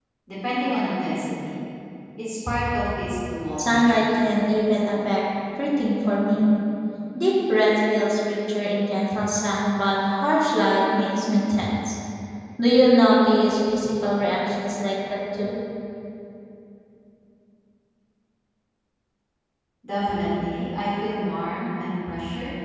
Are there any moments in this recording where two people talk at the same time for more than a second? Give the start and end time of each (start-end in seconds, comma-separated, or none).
none